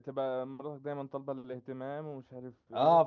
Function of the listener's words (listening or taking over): taking over